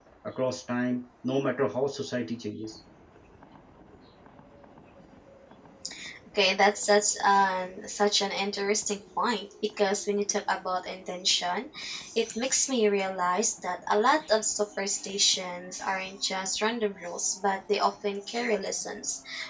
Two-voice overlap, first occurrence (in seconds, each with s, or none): none